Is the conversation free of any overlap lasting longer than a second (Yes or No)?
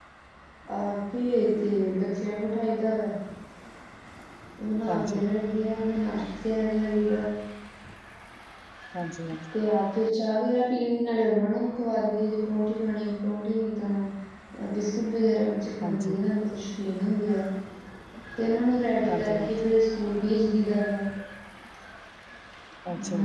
Yes